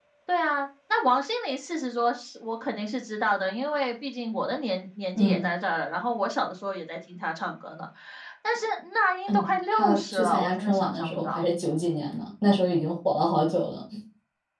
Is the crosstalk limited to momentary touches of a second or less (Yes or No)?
No